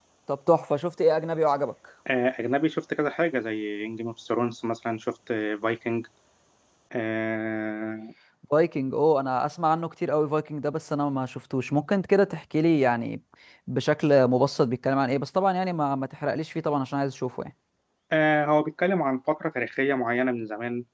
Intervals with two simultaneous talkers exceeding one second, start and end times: none

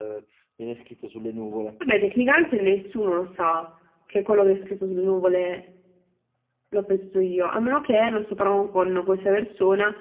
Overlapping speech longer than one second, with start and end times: none

